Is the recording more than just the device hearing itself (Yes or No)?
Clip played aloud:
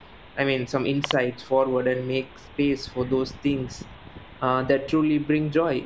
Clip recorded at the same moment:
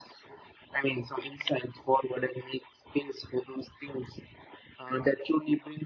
No